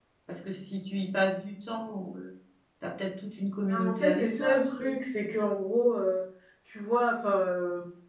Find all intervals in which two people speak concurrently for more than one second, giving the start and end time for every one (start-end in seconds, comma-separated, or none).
3.7-5.0